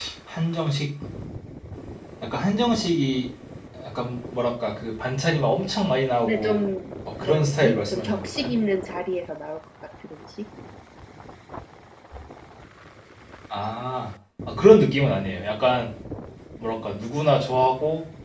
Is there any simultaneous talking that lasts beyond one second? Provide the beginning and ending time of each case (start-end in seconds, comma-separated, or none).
7.2-8.5